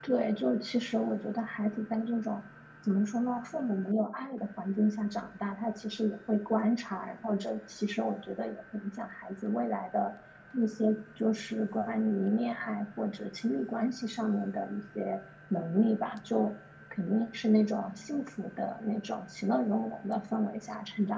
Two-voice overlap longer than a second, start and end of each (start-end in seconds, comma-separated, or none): none